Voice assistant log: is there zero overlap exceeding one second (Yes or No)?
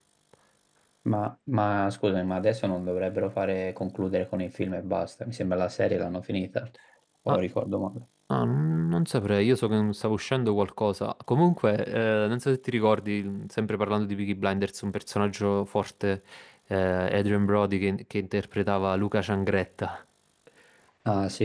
Yes